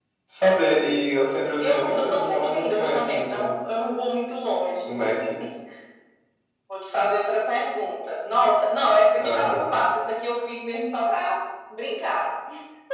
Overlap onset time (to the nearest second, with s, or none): 2 s